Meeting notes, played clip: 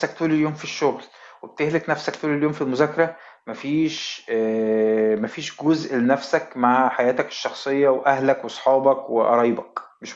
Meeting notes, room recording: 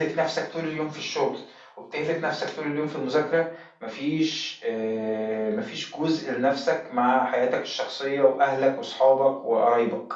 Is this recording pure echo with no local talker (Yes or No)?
Yes